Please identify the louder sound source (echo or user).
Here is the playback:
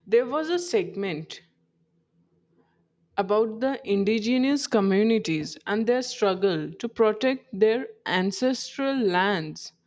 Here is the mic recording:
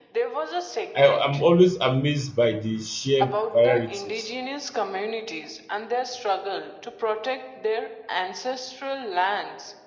user